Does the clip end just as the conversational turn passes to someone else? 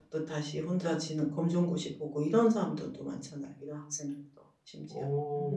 Yes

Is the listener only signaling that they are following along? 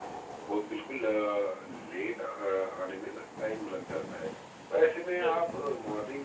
Yes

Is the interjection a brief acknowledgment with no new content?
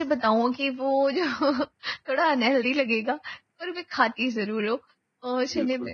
Yes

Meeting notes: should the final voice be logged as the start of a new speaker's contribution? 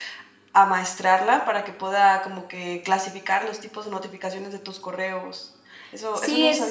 Yes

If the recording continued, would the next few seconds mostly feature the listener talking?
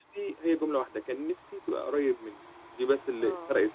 No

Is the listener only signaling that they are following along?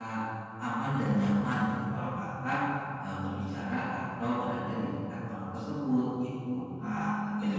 No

